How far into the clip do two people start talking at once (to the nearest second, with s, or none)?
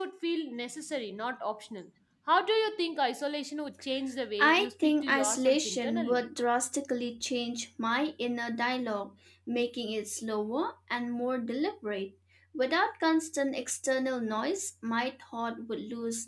4 s